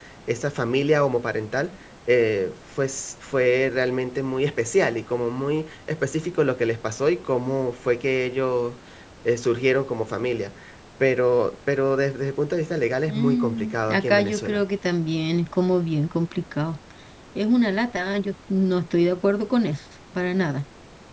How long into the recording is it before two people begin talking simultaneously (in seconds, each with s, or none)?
13.1 s